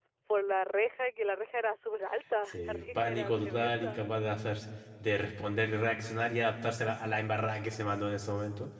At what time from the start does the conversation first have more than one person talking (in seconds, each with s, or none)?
2.5 s